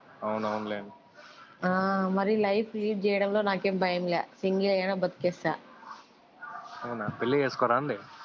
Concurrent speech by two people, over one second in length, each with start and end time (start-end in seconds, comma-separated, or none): none